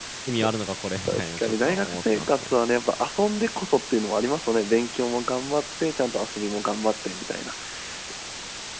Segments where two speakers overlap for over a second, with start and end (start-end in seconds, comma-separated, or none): 1.1-2.5